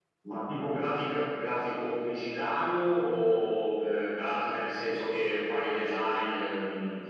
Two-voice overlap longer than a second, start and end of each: none

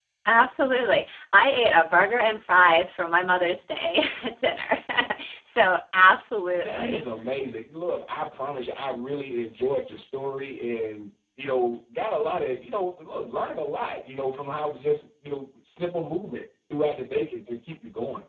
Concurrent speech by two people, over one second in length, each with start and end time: none

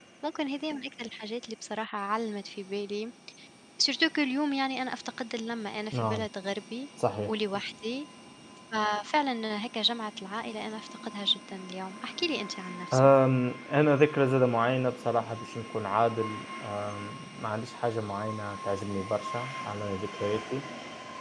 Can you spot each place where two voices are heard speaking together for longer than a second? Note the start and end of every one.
none

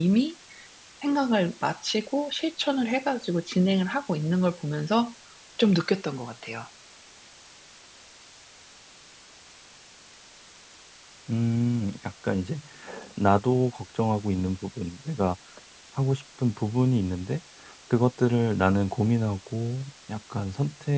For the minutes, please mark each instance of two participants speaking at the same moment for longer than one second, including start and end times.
none

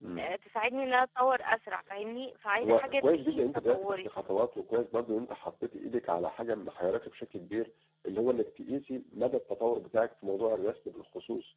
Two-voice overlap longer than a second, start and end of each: 2.6-4.1

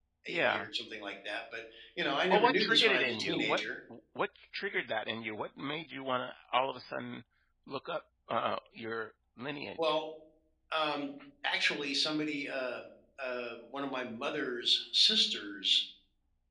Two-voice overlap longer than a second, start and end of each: 2.3-3.6

